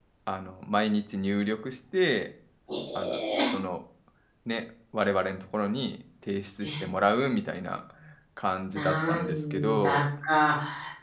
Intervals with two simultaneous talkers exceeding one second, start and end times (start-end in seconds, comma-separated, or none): 8.8-10.0